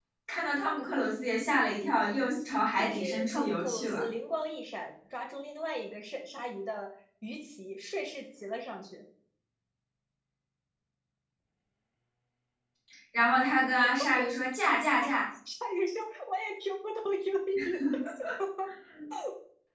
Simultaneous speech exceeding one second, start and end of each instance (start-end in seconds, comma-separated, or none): 2.8-4.0